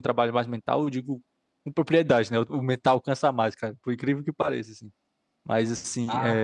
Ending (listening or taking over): listening